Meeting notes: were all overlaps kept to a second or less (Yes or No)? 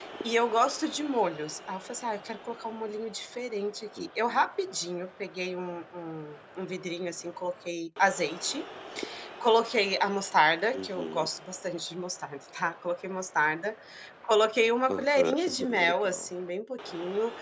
No